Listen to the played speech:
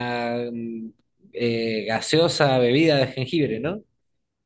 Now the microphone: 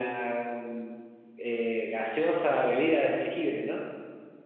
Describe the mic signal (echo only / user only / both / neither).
echo only